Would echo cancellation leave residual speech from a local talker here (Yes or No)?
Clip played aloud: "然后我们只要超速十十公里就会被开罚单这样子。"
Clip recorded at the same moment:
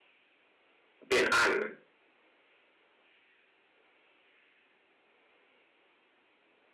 Yes